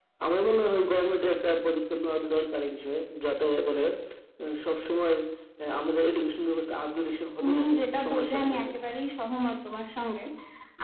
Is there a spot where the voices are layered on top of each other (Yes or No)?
Yes